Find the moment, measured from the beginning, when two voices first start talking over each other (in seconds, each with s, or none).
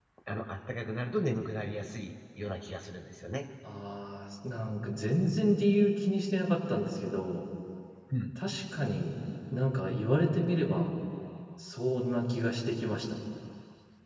none